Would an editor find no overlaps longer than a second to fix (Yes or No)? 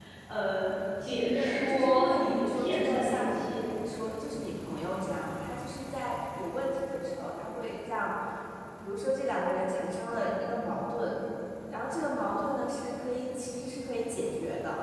No